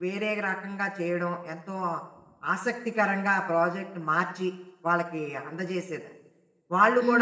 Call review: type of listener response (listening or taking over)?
taking over